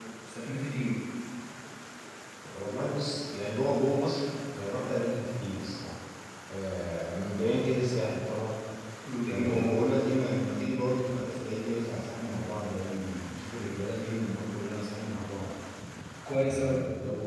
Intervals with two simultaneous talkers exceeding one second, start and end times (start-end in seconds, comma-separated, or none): none